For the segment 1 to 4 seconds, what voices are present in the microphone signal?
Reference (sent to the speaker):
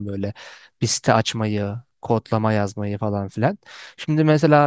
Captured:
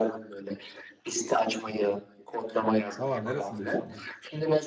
both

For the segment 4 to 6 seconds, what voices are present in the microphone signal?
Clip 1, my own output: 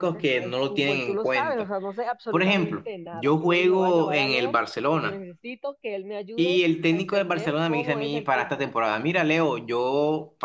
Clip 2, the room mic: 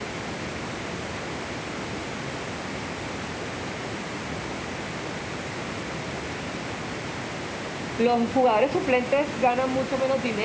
neither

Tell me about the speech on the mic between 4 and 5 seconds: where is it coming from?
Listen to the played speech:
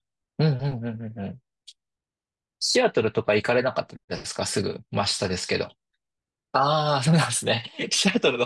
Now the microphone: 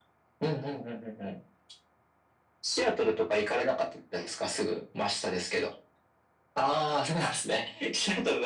echo only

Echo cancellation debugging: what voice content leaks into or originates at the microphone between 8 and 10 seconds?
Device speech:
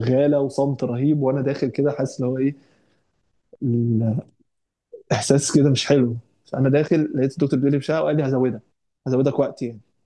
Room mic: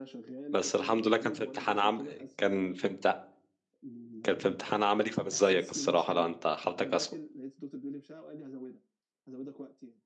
echo only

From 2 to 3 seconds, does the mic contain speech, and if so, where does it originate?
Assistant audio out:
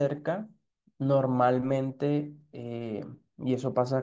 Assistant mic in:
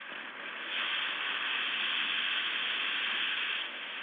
neither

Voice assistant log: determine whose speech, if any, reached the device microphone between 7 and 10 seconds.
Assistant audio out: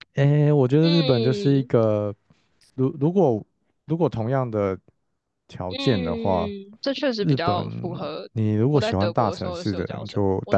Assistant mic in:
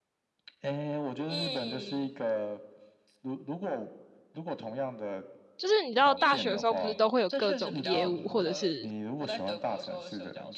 both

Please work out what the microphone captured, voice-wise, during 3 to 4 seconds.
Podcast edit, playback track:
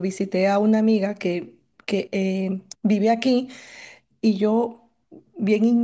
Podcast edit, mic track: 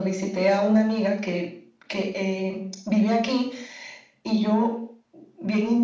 echo only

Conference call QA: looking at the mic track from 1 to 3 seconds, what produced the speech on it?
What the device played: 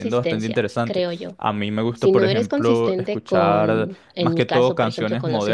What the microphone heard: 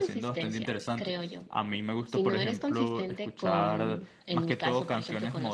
echo only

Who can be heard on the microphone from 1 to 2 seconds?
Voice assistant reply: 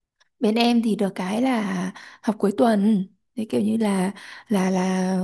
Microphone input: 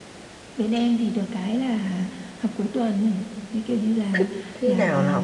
echo only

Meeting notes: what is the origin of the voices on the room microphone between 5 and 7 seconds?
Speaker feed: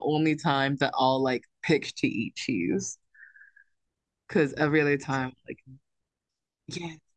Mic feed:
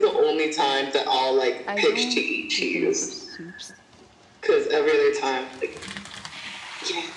echo only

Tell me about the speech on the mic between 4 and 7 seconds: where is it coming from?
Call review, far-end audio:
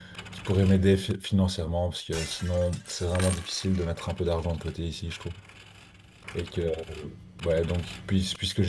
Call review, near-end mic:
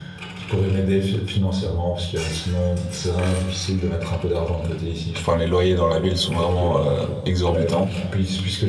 both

